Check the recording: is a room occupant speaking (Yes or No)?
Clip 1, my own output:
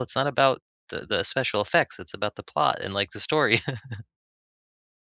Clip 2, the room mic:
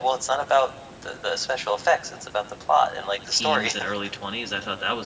Yes